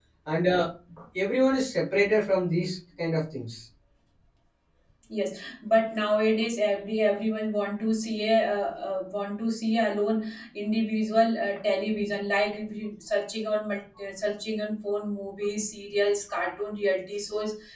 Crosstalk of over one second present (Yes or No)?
No